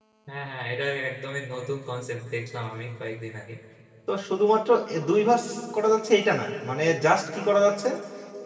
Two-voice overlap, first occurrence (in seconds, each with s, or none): none